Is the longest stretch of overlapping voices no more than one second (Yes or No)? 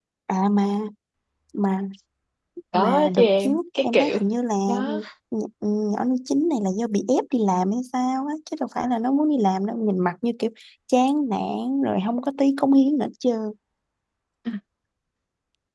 No